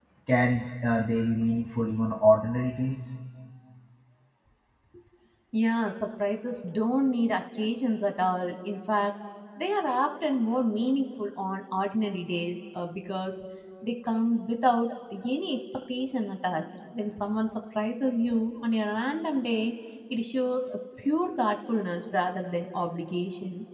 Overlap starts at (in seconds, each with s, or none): none